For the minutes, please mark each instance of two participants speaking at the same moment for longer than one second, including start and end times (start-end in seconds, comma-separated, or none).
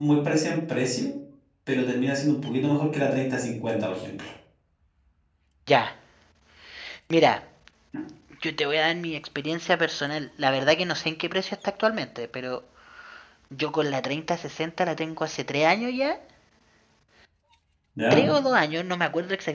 none